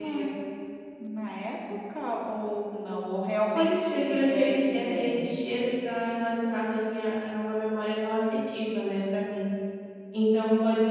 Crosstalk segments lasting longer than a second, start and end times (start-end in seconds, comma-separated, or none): 3.5-5.6